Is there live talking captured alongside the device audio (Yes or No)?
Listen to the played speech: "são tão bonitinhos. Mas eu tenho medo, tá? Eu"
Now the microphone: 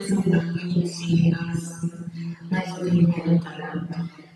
No